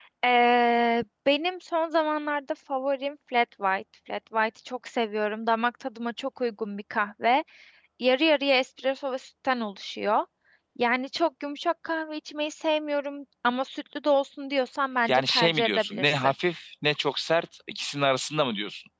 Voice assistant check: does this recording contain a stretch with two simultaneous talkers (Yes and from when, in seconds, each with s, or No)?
Yes, from 15.1 s